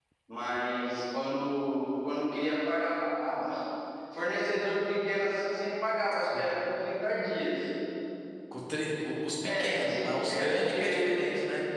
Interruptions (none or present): present